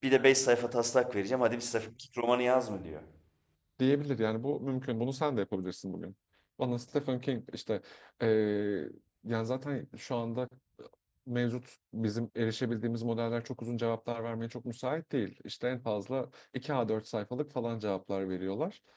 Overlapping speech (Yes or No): No